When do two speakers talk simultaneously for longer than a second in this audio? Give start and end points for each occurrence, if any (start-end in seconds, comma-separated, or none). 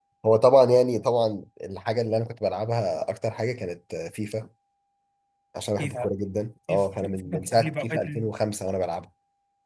6.7-8.0